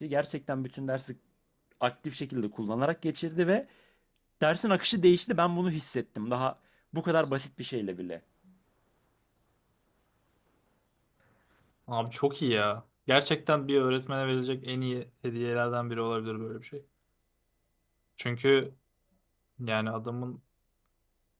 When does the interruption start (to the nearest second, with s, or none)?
none